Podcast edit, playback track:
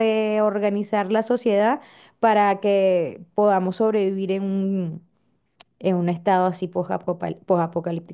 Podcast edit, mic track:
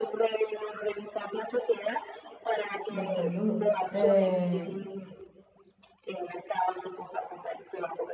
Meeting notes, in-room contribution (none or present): present